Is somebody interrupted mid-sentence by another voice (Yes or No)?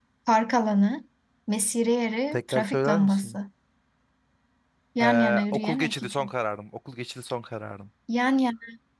Yes